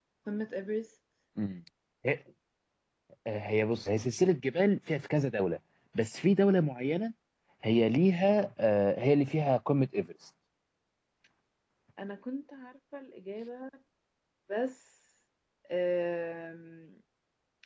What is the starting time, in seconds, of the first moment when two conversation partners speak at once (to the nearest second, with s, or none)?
none